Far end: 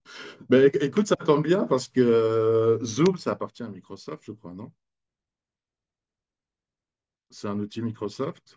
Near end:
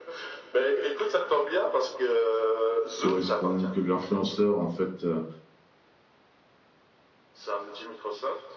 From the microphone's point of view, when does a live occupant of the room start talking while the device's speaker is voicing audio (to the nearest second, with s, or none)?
3 s